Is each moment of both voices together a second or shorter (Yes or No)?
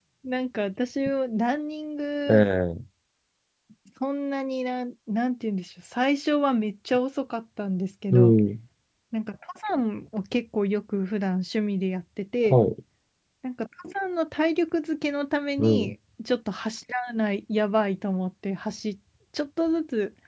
Yes